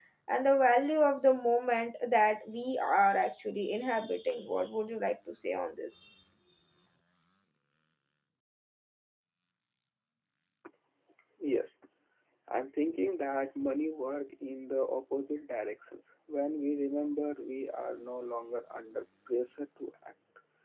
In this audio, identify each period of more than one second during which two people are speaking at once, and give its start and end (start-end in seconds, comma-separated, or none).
none